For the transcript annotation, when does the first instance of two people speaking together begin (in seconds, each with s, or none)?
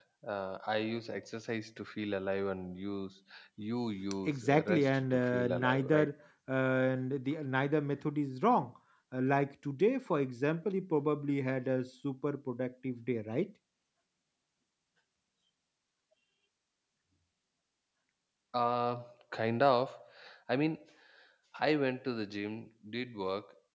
4.3 s